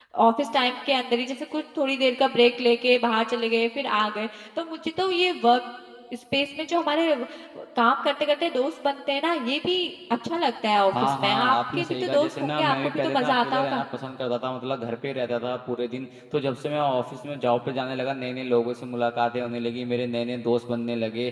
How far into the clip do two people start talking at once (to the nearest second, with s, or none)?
11 s